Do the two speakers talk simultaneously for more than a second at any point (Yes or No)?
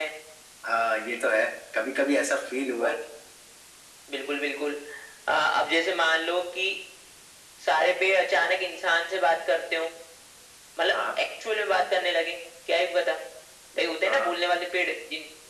No